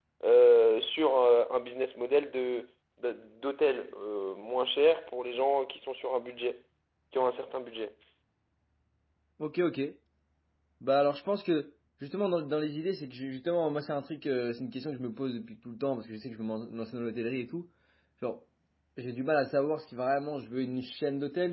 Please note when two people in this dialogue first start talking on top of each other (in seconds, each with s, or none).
none